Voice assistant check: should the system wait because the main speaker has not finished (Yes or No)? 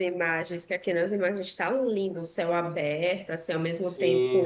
No